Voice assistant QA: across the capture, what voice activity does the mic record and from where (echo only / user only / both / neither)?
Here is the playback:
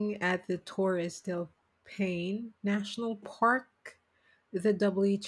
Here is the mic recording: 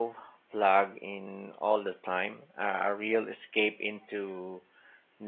user only